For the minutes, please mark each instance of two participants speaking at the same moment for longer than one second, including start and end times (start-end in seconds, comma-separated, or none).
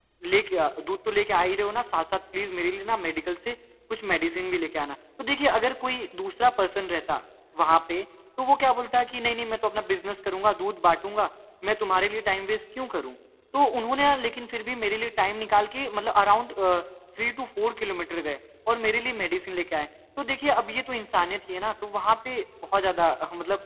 none